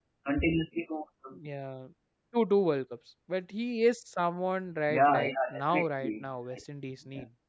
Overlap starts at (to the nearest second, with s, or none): 5 s